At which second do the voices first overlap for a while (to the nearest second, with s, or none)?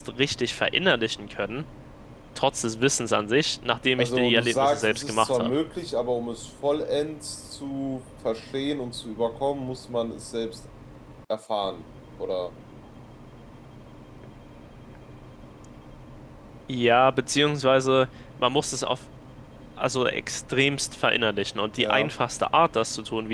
4 s